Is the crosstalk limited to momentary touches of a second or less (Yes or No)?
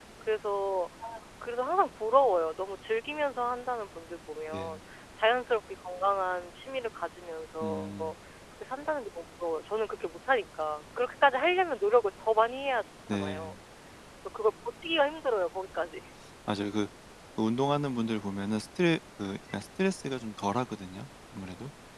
Yes